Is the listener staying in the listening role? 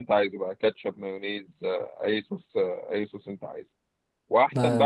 Yes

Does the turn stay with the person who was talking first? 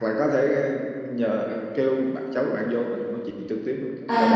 No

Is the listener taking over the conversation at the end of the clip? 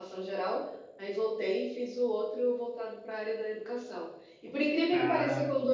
No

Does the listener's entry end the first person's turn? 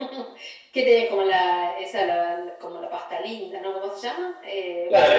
Yes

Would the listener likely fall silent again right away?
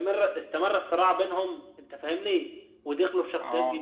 Yes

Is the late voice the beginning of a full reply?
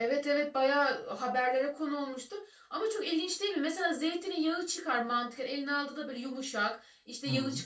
No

